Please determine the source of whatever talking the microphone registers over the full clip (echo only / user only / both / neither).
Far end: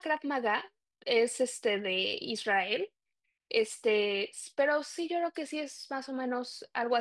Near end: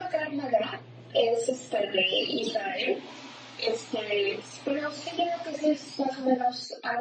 echo only